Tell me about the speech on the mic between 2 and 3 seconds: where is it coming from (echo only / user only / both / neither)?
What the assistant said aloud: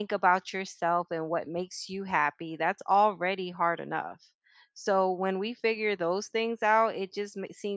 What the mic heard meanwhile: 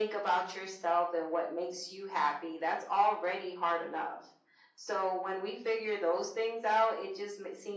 echo only